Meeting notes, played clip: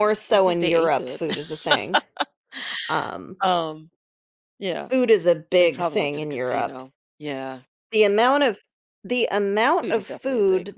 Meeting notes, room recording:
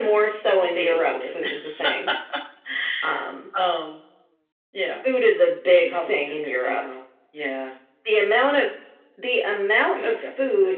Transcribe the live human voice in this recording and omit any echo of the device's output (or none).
none